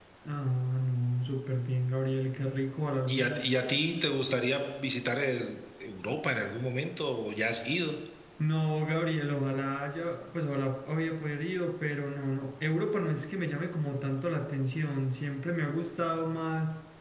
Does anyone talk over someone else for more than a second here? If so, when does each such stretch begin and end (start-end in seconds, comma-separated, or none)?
none